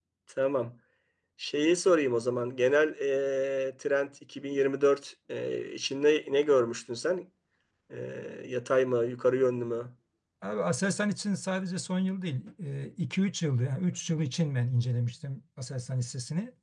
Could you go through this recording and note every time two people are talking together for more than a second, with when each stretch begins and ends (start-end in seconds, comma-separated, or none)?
none